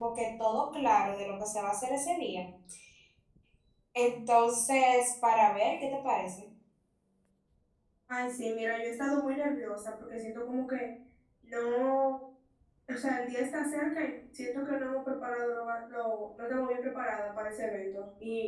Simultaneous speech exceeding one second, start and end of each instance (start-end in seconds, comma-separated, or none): none